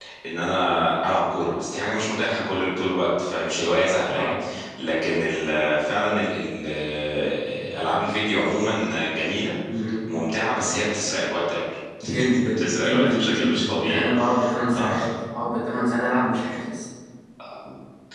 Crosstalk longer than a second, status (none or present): present